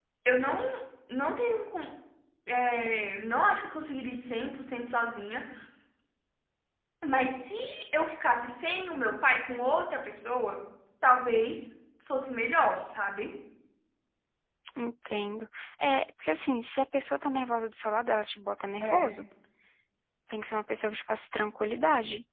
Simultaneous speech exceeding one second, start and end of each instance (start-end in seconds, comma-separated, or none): none